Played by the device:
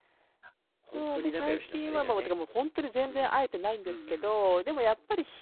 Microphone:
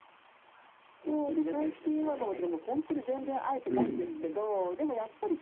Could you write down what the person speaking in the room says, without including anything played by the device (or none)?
うん。